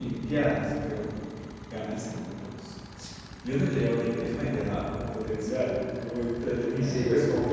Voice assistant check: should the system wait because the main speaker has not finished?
No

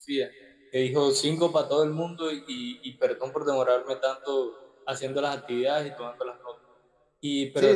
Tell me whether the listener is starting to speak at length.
No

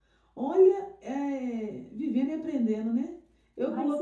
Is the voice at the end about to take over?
No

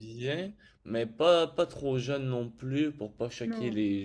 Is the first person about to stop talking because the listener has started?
No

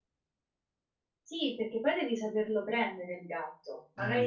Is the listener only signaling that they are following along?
Yes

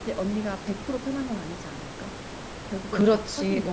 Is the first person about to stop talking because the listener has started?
Yes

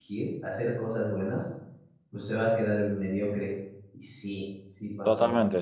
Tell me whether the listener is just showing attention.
No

